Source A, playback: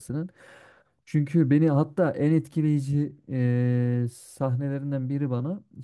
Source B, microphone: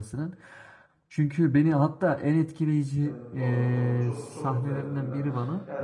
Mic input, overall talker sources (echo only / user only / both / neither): both